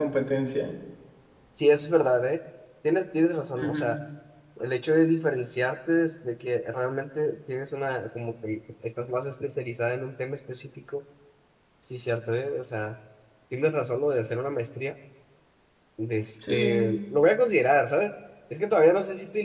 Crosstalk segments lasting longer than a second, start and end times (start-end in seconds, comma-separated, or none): none